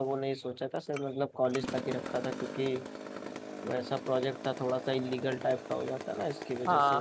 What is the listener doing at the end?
taking over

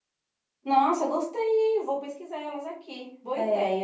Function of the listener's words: taking over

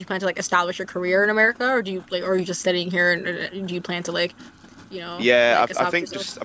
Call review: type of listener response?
taking over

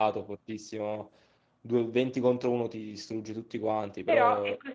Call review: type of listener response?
taking over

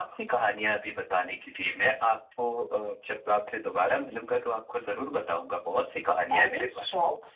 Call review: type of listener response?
taking over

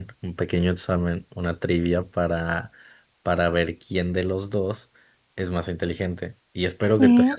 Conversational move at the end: listening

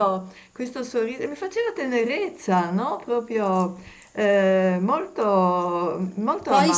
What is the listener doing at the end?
taking over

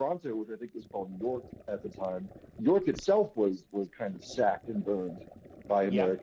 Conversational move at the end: taking over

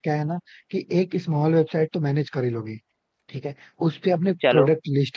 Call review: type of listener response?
listening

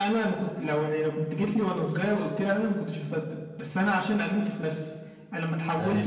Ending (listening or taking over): listening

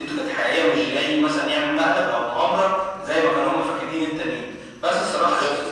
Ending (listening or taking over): listening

